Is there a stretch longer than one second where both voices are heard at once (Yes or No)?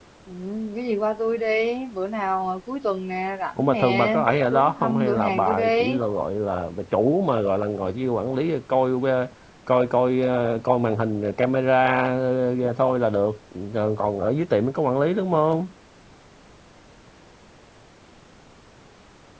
Yes